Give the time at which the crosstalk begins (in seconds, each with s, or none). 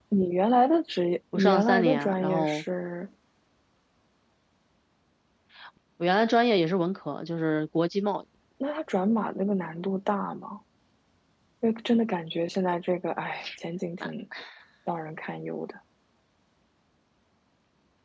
1.3 s